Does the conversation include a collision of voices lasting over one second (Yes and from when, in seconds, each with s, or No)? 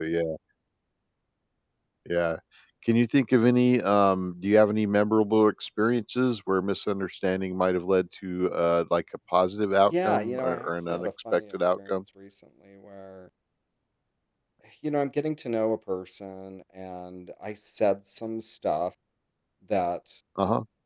Yes, from 9.9 s